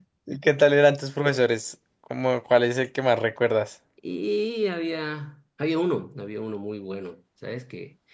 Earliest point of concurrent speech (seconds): none

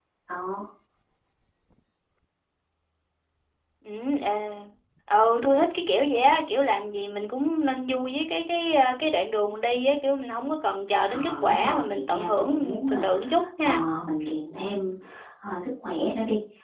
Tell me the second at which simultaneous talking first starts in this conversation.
11.1 s

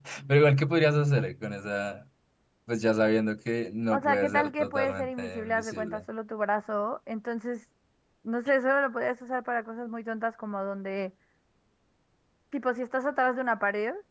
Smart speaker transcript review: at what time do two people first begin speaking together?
3.9 s

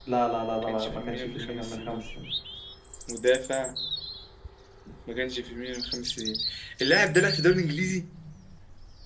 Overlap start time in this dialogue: 0.6 s

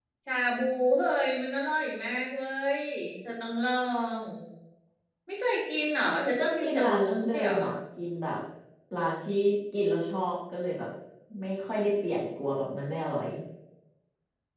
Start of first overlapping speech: 6.0 s

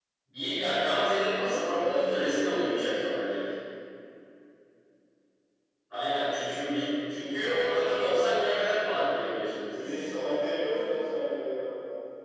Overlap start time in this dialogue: 1.6 s

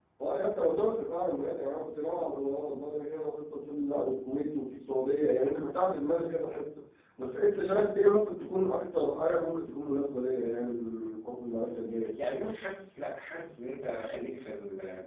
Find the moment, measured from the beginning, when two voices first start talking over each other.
none

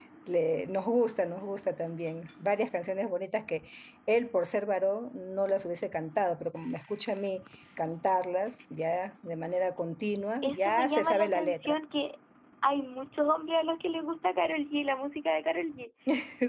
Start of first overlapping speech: 10.4 s

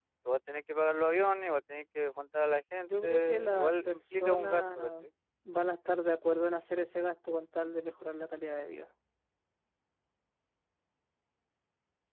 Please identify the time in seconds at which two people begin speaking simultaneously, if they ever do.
2.8 s

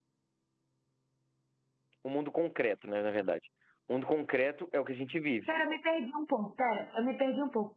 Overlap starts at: none

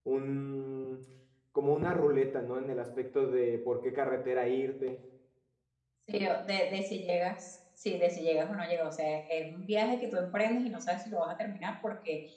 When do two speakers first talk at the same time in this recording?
none

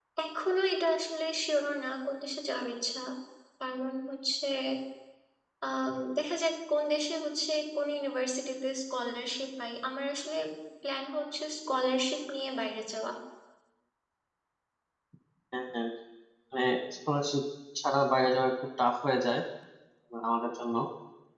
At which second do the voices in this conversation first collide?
none

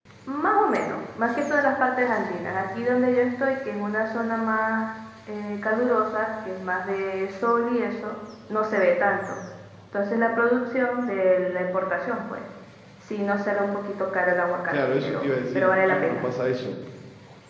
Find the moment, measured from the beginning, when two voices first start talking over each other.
14.7 s

